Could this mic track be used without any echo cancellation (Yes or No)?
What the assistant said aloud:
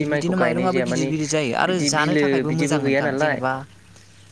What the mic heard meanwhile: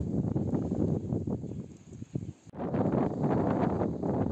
Yes